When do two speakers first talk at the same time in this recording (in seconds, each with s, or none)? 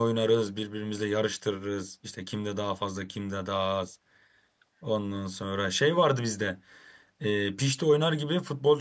none